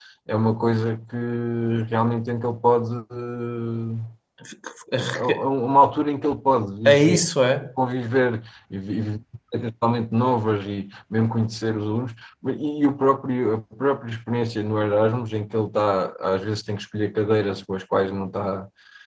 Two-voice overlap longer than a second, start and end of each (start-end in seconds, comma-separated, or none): none